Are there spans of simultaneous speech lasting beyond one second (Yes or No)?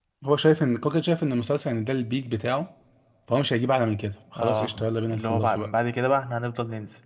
Yes